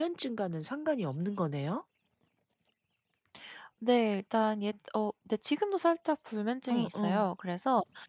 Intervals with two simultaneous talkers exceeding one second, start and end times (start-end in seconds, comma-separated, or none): none